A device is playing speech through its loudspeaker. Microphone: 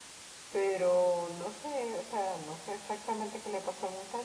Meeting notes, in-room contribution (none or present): present